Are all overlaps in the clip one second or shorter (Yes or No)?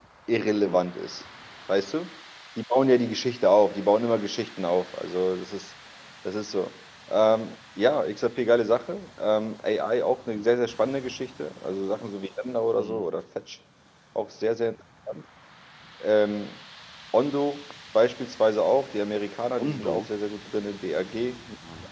Yes